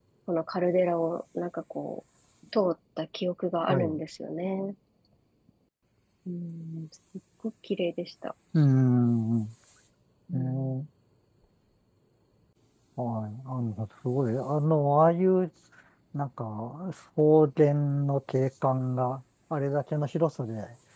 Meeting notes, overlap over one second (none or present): none